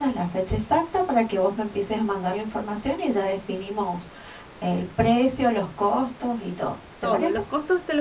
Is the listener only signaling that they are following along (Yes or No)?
No